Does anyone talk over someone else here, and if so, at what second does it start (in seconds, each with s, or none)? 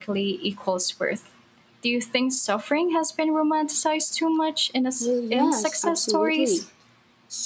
5.0 s